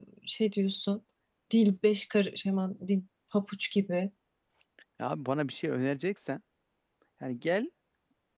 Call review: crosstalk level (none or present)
none